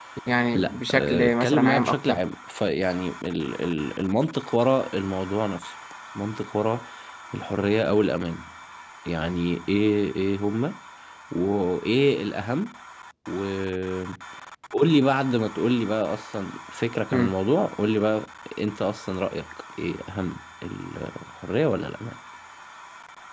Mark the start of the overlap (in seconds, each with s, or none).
0.5 s